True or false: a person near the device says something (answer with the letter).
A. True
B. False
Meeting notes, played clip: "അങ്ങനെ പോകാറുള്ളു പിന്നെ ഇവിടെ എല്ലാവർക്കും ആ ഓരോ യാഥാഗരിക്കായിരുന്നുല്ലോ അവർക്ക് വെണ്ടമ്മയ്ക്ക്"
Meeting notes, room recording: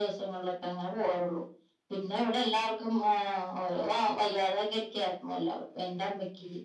B